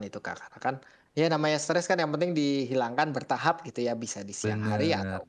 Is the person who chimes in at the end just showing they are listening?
Yes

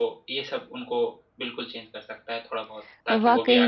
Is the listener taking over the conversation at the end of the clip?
Yes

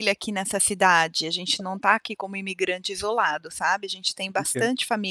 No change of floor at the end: No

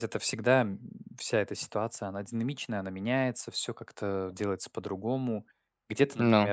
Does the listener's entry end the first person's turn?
No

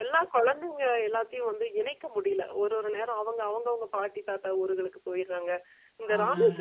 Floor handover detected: No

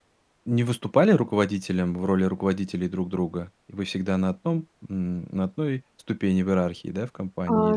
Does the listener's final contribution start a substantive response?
Yes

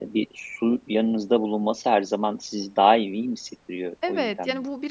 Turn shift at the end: Yes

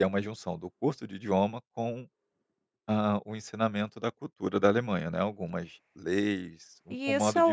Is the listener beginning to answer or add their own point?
Yes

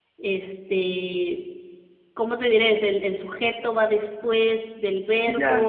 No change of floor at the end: No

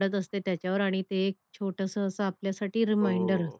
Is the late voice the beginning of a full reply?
Yes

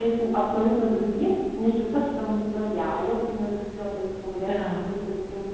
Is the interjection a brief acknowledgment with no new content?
Yes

